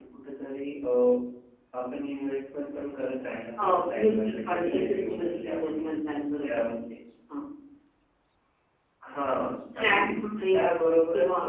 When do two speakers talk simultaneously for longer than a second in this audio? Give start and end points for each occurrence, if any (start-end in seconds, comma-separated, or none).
3.6-6.6